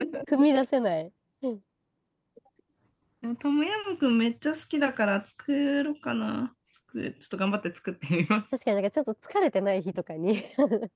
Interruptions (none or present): none